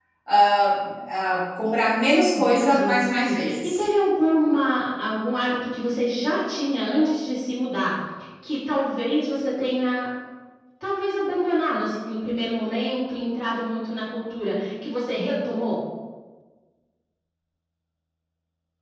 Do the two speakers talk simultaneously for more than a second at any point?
Yes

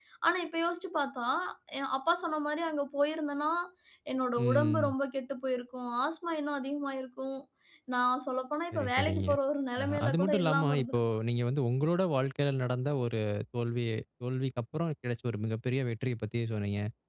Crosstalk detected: Yes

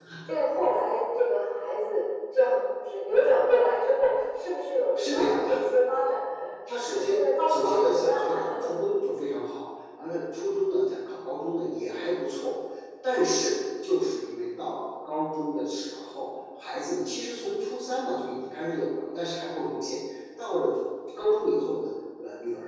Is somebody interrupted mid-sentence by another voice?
Yes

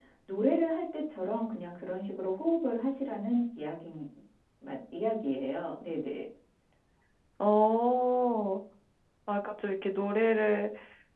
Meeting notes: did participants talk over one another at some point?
No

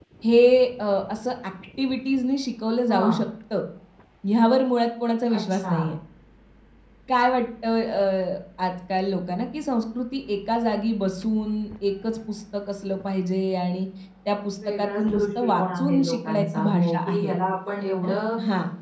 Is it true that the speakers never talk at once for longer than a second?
No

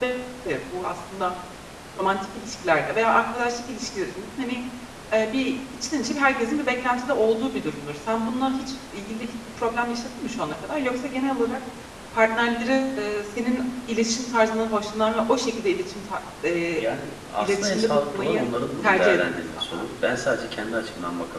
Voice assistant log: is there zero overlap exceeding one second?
No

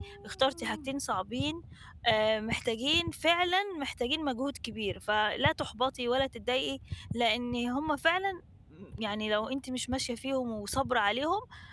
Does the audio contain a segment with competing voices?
No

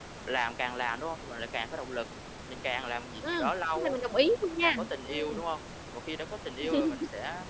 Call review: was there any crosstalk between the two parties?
Yes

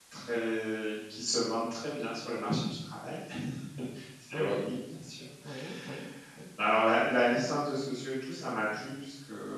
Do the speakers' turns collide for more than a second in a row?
No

